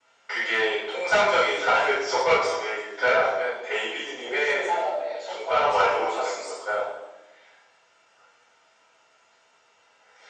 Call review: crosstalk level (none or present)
present